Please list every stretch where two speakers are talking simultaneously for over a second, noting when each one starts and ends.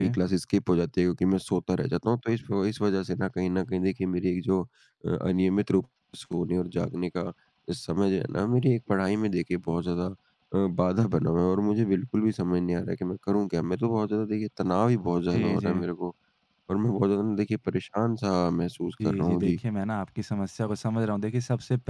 none

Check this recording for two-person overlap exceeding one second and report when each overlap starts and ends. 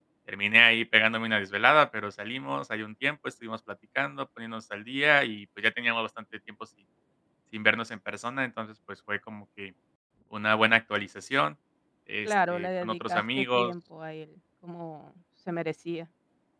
12.2-13.7

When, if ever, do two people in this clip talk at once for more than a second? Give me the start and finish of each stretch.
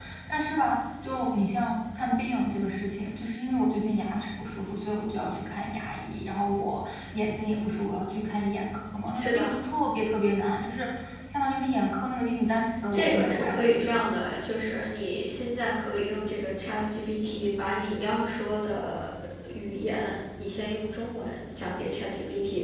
12.9-14.2

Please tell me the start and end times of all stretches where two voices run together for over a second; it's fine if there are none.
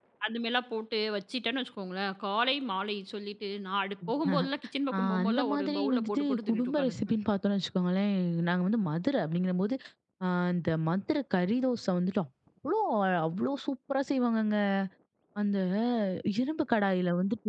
4.9-7.0

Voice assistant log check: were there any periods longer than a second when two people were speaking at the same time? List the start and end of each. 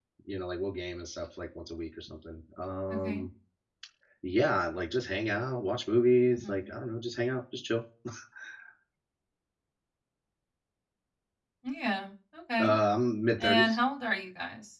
none

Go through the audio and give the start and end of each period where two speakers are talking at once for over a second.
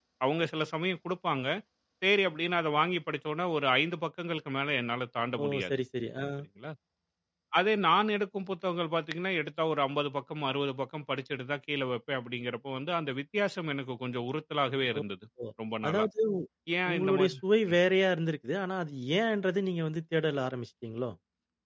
none

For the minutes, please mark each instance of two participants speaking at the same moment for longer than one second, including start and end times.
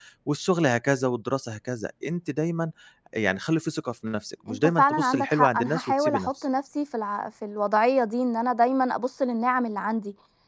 4.5-6.3

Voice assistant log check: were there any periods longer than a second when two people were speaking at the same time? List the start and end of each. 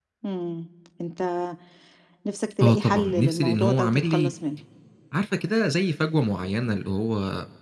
2.6-4.3

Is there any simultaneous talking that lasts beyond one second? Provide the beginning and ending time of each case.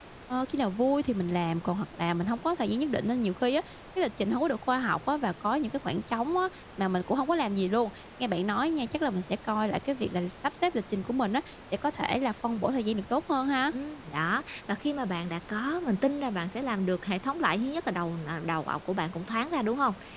none

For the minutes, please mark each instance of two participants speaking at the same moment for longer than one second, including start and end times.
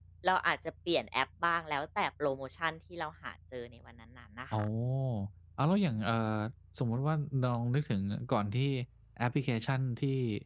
none

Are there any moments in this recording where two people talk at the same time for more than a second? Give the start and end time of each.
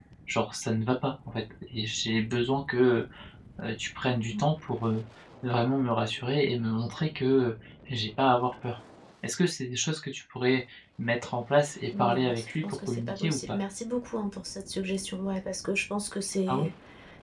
12.0-13.6

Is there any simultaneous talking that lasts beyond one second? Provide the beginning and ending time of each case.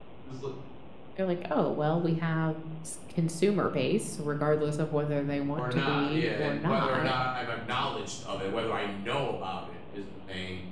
5.5-7.1

